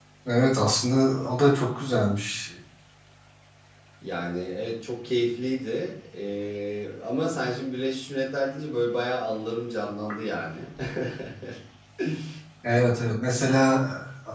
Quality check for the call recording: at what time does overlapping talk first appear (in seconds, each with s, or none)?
none